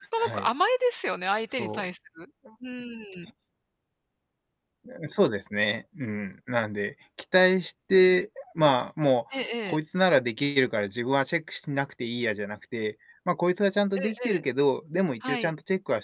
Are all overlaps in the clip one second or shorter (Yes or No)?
Yes